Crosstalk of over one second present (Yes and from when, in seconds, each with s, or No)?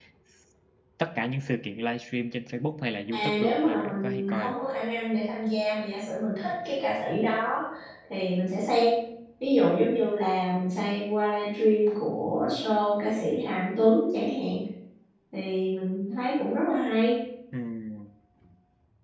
Yes, from 3.1 s